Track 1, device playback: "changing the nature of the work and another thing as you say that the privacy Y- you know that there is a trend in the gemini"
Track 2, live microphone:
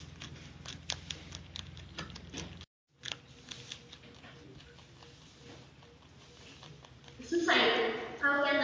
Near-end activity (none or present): present